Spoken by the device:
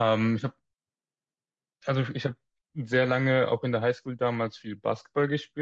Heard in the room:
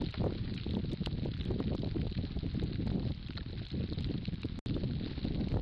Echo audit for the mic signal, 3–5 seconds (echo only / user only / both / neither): neither